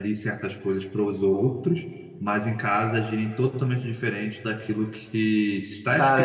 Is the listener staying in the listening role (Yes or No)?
No